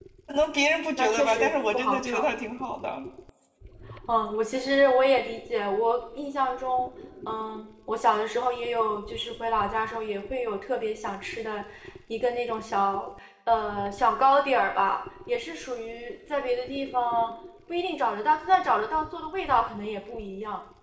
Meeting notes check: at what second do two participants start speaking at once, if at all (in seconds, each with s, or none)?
1.0 s